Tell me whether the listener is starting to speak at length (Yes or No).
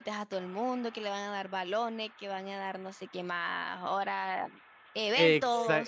Yes